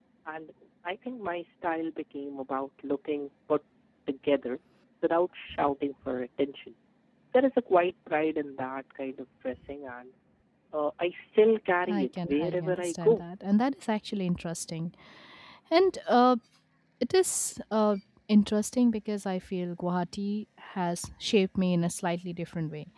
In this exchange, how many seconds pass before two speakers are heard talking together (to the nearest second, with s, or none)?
12 s